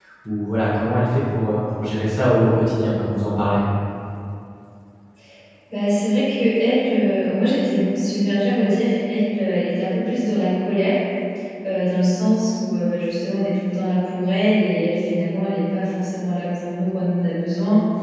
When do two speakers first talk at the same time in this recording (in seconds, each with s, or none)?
none